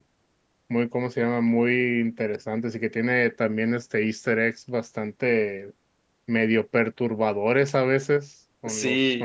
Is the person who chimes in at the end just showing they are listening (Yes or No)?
No